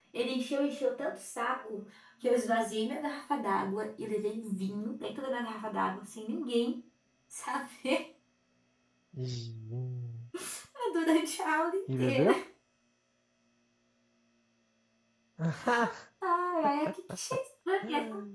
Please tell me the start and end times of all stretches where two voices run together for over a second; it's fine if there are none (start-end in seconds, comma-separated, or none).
none